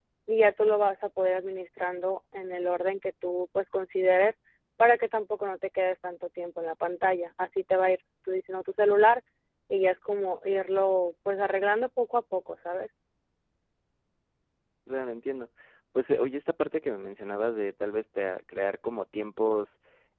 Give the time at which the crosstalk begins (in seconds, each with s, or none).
none